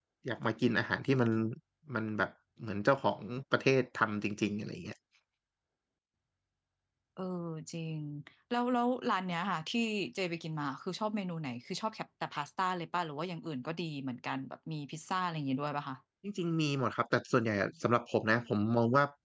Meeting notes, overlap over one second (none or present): none